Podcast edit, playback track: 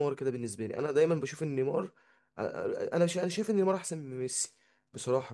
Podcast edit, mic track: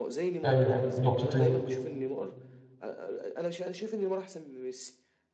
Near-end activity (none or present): present